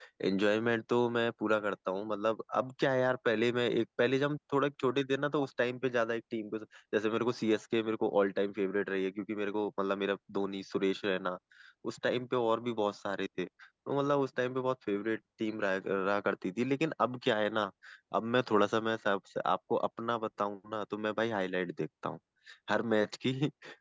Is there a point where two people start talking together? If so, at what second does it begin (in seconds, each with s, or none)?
none